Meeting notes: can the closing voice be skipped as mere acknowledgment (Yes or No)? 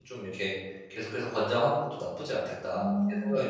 No